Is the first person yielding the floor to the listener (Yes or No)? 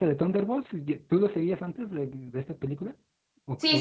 Yes